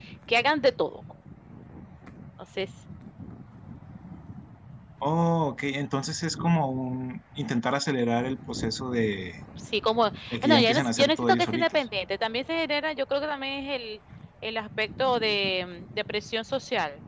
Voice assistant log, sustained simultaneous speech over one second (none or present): present